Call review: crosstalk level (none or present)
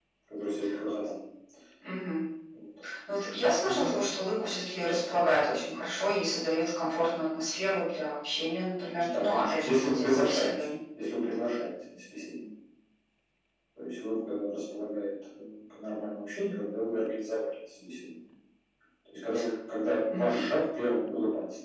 present